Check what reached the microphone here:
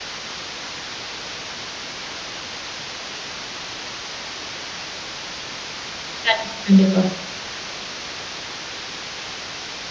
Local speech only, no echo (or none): கண்டிப்பா, கண்டிப்பா.